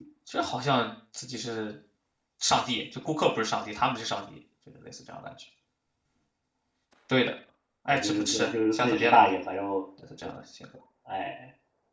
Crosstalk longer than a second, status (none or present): present